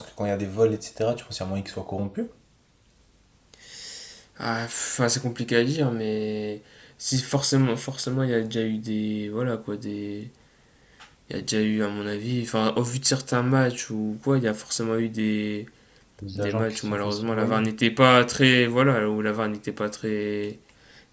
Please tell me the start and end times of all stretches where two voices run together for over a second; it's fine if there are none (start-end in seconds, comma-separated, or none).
16.4-17.6